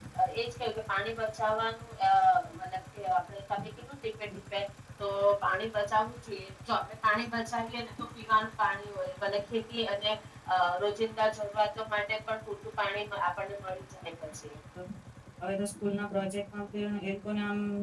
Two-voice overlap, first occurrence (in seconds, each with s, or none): none